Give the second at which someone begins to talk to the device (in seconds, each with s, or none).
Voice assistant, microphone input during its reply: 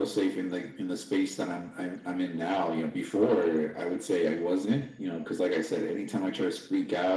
none